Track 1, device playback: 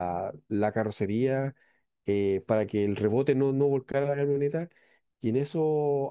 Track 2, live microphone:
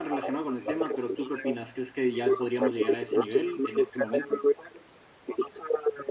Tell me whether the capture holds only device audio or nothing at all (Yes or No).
No